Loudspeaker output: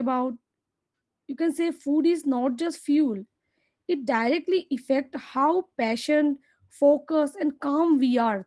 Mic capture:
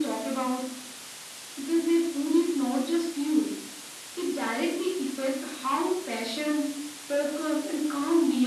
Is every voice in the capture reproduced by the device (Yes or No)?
Yes